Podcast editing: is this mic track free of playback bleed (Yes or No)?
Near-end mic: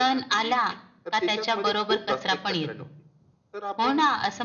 No